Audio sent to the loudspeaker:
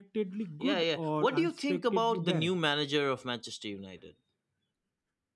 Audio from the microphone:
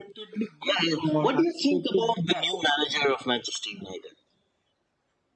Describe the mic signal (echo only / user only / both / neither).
echo only